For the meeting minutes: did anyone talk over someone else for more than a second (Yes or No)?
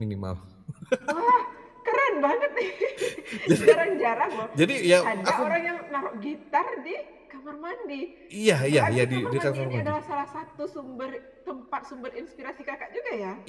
Yes